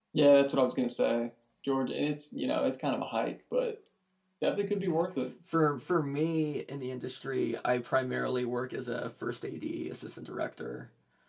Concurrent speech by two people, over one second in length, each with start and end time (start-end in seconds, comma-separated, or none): none